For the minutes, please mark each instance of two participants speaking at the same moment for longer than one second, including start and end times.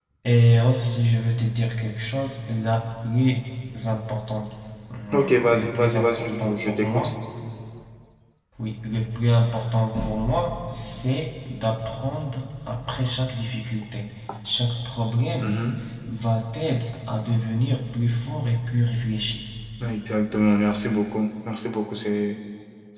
5.1-7.1

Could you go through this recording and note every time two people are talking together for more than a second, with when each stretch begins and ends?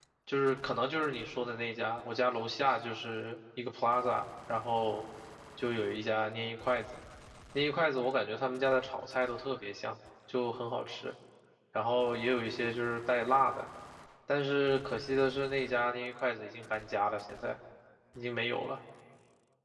none

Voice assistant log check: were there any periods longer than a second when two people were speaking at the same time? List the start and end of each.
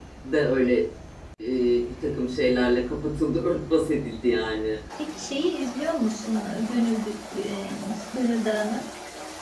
none

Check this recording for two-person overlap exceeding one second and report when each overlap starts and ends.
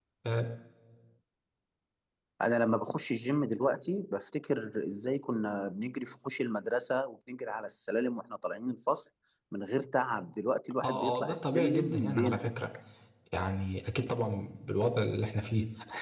10.8-12.5

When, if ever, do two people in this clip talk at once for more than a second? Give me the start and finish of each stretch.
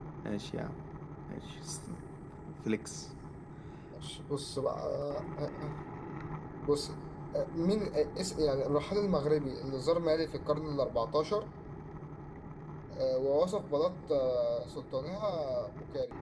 none

